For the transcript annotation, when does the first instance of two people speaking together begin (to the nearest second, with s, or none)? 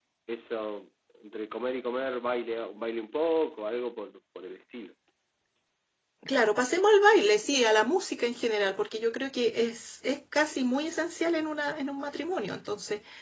none